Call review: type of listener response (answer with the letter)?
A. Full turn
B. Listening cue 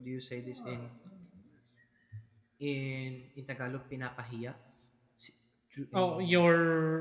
A